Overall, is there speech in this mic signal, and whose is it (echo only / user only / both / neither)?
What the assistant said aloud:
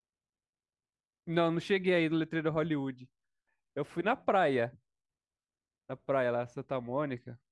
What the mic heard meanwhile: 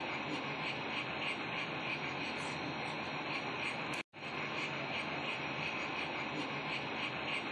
neither